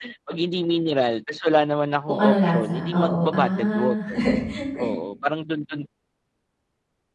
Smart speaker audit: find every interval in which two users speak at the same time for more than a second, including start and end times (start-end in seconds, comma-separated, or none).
2.1-4.0